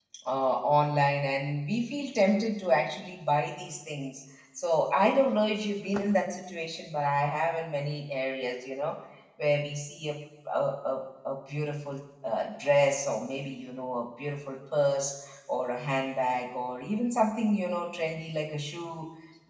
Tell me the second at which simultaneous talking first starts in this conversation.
none

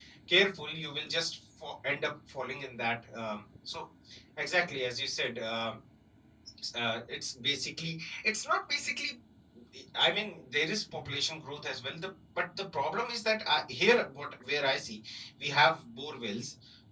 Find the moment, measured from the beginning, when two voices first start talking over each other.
none

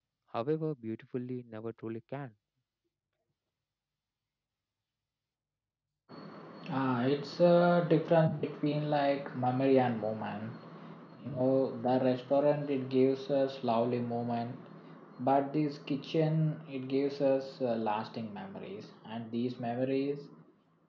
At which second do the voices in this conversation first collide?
none

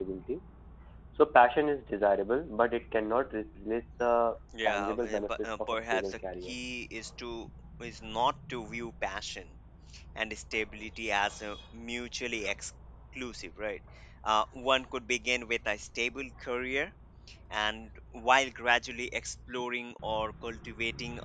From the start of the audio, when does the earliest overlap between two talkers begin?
4.5 s

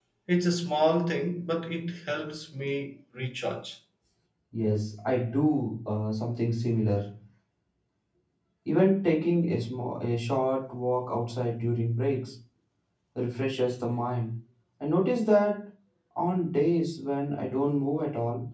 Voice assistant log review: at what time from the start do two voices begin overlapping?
none

